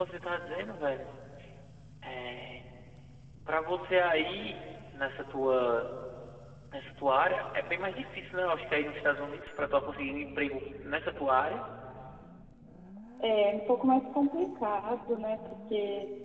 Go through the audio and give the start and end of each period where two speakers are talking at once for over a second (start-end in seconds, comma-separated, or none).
none